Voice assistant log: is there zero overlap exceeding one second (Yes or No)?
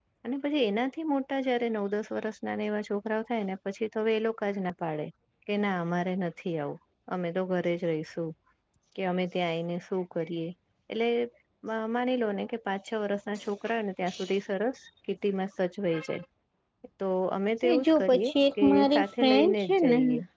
No